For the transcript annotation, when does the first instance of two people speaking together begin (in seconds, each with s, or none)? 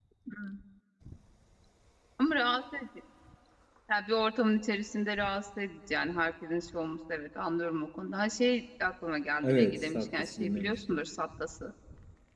9.4 s